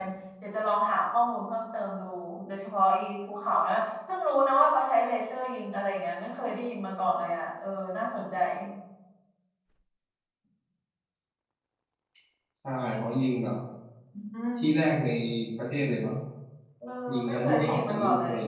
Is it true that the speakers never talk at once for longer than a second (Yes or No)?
No